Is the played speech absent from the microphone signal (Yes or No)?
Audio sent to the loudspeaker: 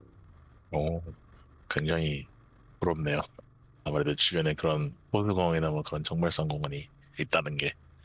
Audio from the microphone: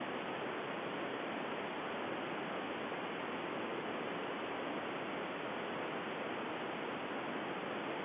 Yes